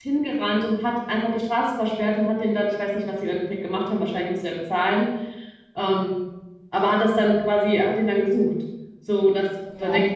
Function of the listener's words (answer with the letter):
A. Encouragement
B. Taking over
A